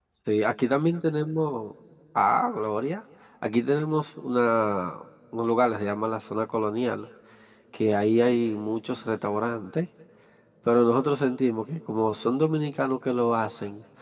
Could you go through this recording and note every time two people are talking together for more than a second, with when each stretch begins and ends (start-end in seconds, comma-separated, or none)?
none